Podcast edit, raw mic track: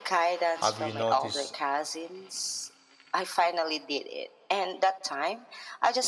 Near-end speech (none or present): present